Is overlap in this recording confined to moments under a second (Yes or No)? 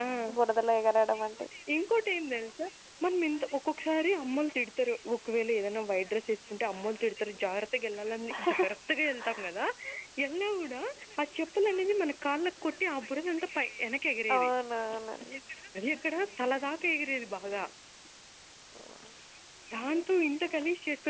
Yes